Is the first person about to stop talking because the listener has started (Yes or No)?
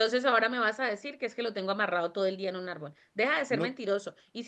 No